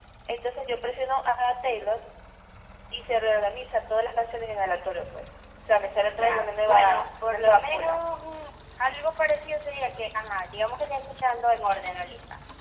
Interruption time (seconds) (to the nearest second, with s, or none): 6 s